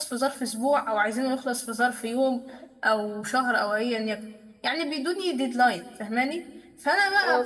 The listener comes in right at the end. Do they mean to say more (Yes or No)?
No